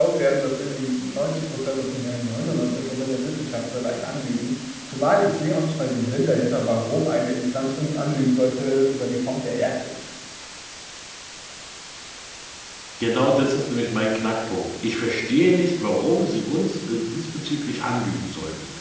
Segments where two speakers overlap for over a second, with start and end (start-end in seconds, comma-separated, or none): none